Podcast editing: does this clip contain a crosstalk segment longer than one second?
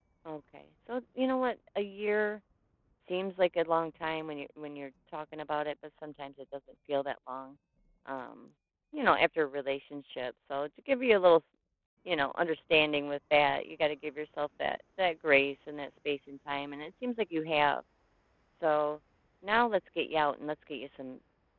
No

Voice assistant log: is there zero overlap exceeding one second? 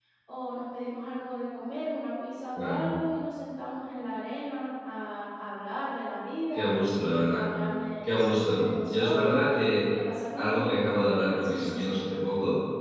No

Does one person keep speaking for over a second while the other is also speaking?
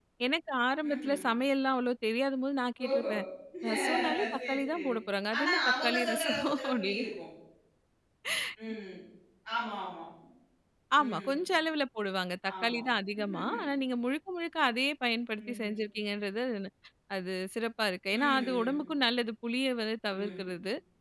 Yes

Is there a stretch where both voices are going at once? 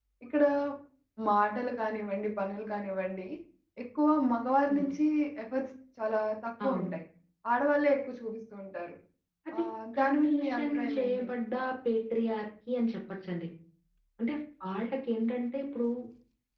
Yes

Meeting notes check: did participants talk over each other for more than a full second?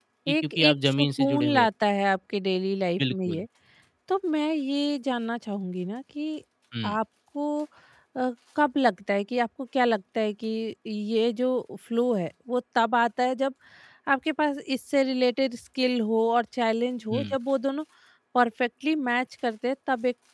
Yes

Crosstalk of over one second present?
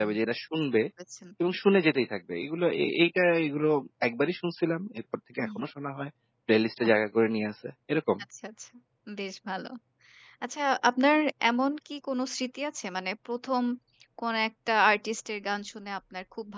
No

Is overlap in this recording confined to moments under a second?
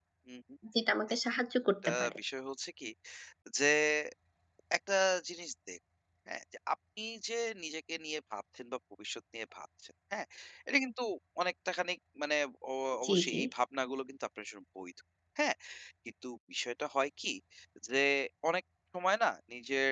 Yes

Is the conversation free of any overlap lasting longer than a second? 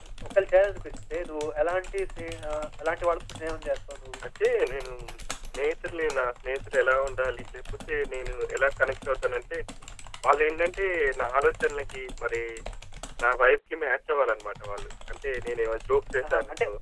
Yes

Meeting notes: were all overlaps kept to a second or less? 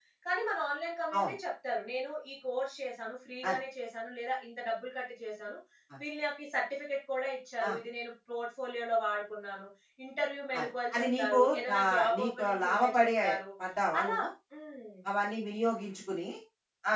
No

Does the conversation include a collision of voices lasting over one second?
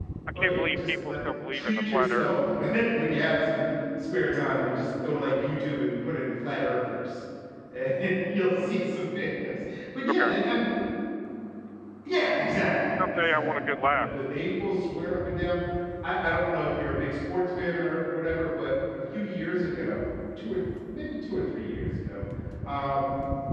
Yes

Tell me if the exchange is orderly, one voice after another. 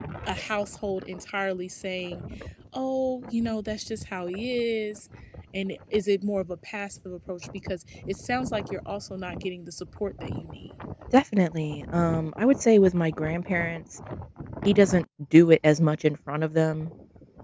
Yes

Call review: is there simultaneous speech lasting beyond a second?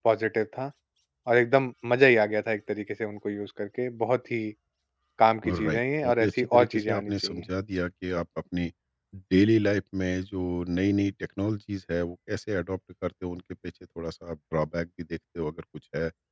Yes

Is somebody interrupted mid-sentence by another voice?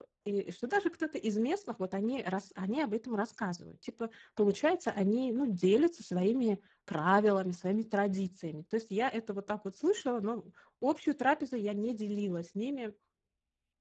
No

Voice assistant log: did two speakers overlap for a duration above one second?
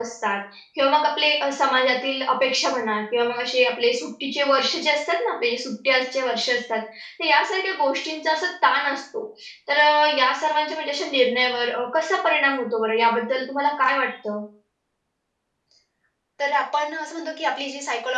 No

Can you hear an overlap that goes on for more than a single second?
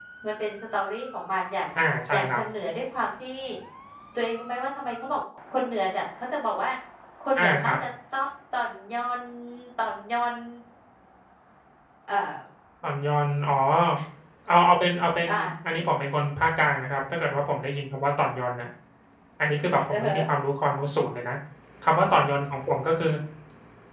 No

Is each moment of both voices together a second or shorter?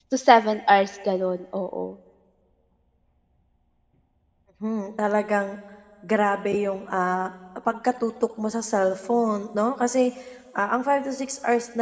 Yes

